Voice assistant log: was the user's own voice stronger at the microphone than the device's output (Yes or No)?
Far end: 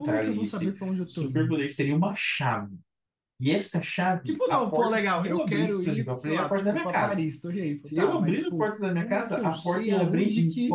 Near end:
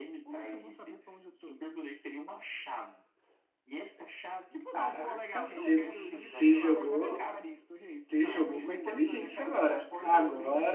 Yes